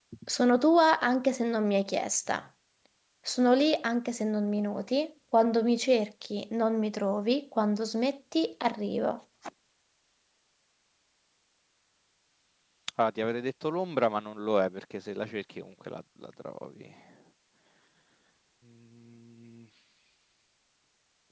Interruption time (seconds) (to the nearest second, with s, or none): none